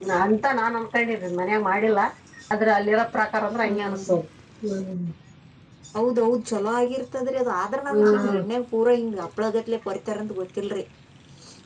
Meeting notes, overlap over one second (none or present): none